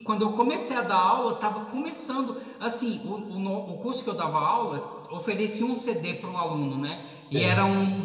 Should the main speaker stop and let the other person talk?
No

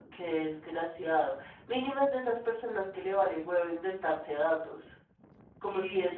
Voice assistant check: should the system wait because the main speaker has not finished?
Yes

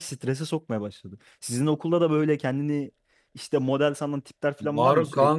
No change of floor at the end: No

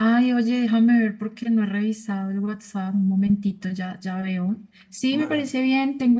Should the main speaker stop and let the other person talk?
No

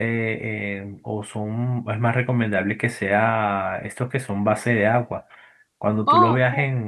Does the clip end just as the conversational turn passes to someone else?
No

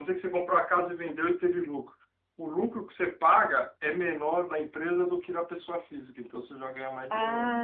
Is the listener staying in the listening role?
No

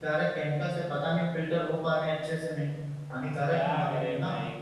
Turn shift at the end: Yes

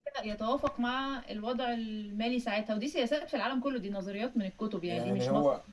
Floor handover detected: Yes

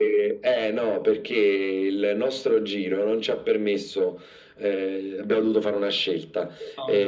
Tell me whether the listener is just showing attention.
Yes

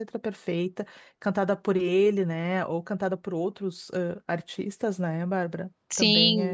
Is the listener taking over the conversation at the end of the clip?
Yes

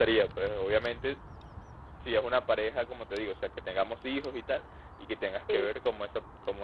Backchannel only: Yes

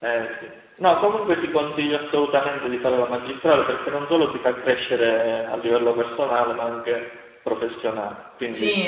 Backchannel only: No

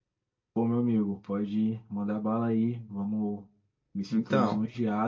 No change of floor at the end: Yes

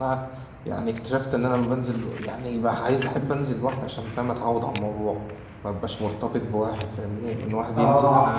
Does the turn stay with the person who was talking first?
No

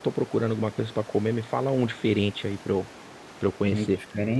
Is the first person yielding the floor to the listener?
Yes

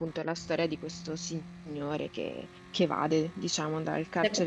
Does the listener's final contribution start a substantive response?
Yes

